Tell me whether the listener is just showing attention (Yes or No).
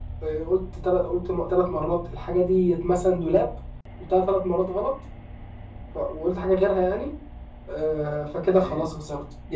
Yes